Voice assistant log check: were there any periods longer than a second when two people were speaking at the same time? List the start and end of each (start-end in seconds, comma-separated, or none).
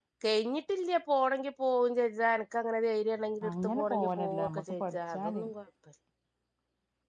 3.5-5.4